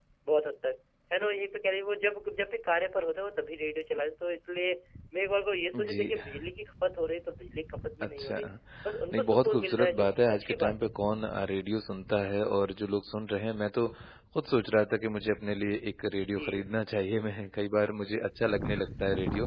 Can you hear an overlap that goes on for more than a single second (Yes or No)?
Yes